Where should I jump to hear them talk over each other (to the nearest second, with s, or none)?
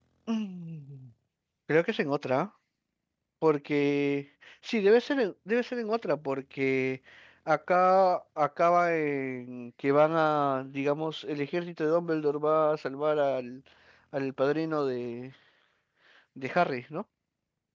none